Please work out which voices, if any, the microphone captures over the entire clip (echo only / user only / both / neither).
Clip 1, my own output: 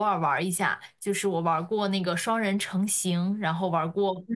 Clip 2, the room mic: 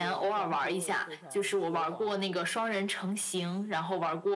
both